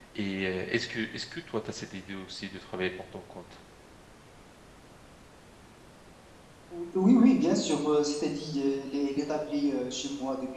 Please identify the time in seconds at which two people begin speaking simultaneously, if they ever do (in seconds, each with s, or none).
none